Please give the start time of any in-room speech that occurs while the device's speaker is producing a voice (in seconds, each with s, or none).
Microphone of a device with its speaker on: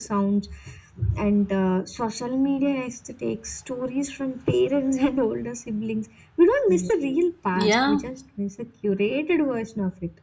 6.7 s